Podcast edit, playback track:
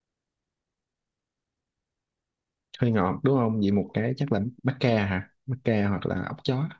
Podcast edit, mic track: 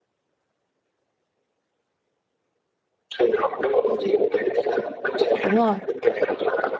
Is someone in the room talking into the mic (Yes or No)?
Yes